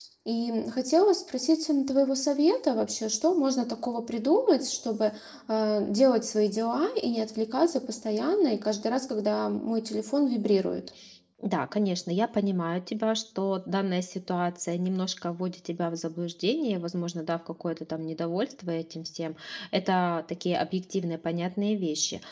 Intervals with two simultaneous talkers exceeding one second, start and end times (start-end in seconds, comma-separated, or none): none